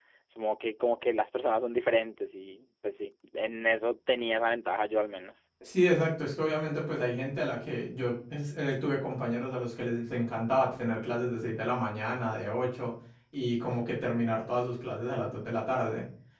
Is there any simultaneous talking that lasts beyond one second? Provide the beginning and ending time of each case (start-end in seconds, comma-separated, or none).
none